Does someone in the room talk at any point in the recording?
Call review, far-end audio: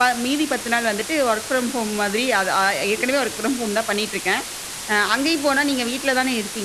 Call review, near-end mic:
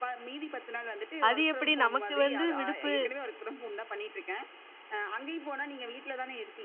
Yes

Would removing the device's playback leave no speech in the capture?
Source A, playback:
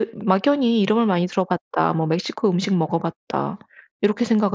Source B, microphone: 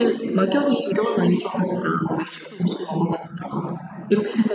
Yes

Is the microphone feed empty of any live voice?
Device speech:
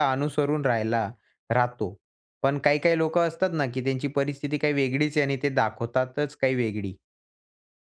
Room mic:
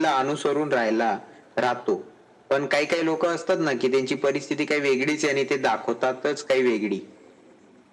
Yes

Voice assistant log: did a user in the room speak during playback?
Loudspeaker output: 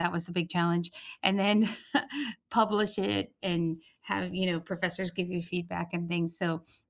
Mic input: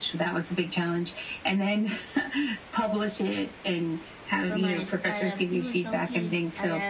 Yes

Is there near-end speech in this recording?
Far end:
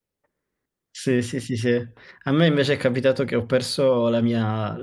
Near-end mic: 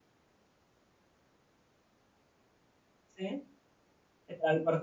Yes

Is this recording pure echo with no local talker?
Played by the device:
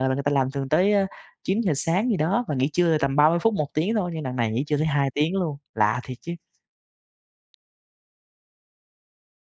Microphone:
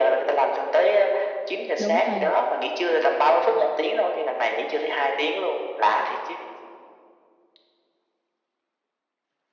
No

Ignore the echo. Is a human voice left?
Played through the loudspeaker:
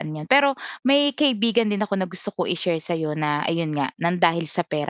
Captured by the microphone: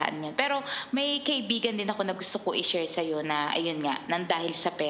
No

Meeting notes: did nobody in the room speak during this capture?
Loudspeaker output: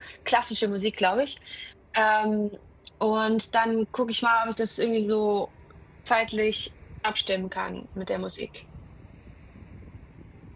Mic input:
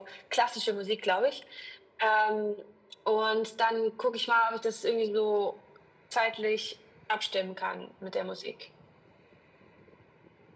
Yes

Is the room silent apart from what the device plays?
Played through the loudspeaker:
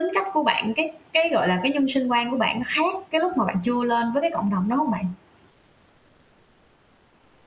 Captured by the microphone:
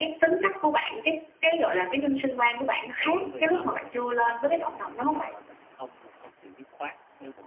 No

